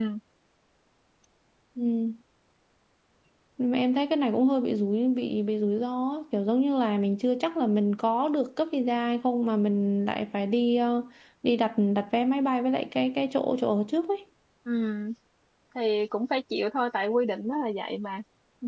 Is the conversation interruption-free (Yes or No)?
Yes